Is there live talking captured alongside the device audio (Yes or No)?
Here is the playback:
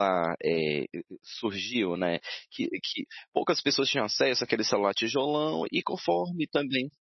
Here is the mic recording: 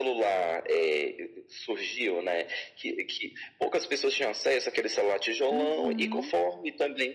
Yes